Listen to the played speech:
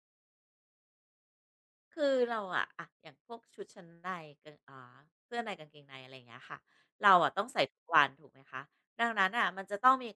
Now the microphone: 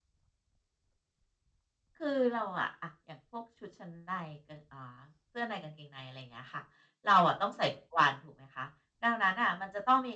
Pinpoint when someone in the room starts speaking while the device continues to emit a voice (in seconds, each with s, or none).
none